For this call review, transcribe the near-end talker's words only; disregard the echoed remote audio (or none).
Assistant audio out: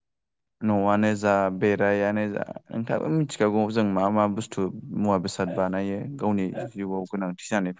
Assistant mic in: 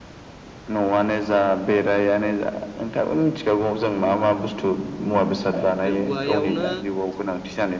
बे औवायावनो